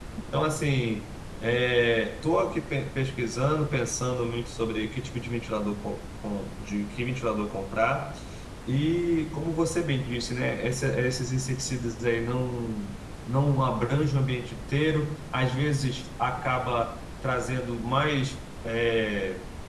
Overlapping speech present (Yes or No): No